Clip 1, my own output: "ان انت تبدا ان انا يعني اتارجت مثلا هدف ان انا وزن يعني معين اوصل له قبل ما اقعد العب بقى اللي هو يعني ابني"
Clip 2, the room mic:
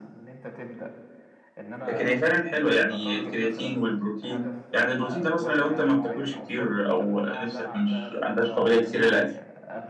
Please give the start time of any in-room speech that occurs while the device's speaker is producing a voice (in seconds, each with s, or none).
1.8 s